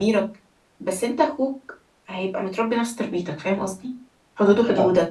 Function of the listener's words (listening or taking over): listening